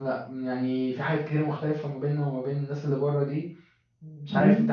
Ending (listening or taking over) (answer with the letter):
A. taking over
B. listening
A